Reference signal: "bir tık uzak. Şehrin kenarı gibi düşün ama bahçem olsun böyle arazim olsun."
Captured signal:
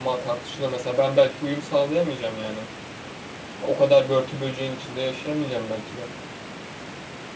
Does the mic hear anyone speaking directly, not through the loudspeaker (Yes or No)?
Yes